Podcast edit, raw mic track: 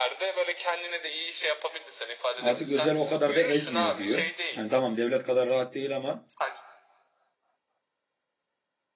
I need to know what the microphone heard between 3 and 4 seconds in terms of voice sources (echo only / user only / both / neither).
both